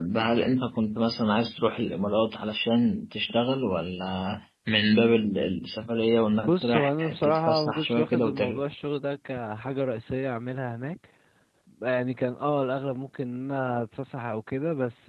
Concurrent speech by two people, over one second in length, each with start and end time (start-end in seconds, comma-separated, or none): 6.4-8.6